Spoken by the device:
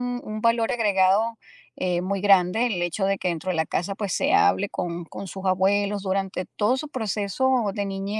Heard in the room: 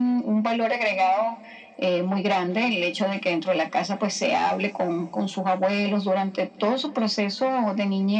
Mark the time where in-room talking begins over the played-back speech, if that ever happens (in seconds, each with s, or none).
none